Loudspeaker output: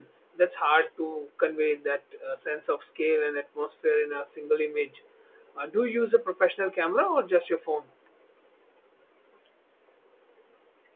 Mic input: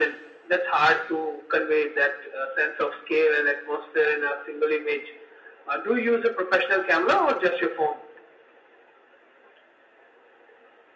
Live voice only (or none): none